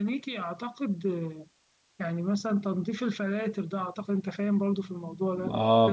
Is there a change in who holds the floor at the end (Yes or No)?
Yes